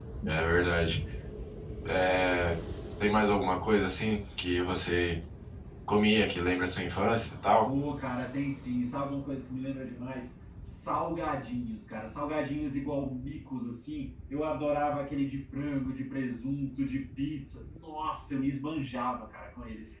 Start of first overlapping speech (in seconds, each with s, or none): none